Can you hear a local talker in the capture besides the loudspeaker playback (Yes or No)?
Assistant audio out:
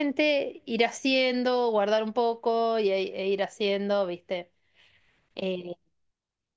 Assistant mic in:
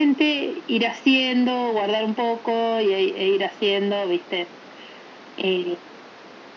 No